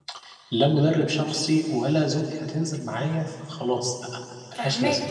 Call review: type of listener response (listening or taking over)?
taking over